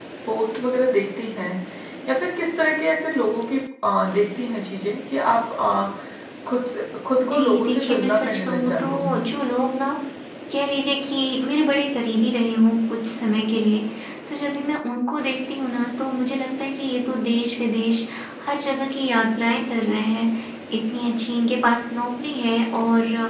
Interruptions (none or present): present